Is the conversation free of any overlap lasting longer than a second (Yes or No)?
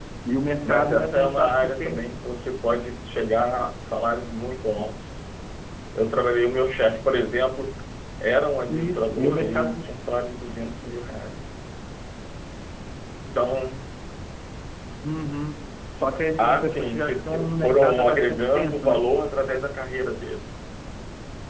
No